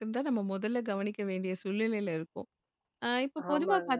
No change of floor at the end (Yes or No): Yes